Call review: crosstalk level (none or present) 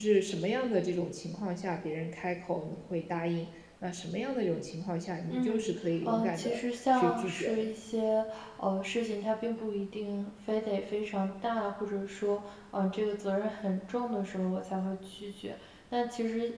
present